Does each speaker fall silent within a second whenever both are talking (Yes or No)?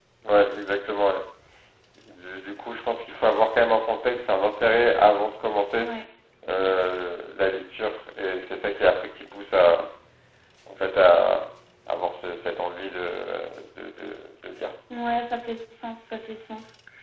Yes